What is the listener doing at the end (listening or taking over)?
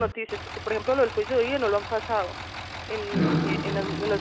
listening